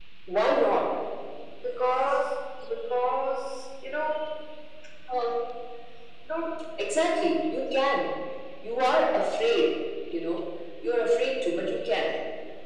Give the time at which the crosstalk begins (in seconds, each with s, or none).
none